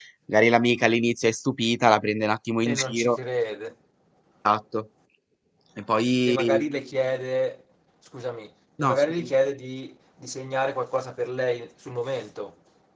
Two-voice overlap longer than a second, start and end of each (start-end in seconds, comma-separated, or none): none